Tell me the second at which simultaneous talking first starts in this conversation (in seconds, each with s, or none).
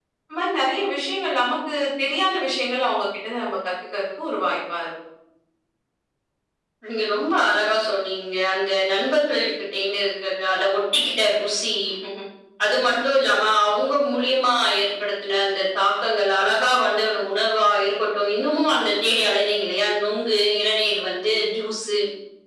none